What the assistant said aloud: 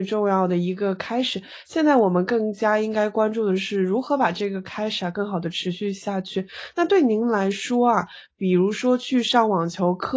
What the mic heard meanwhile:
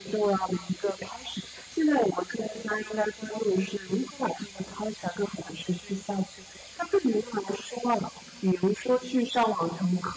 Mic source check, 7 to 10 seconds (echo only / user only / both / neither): echo only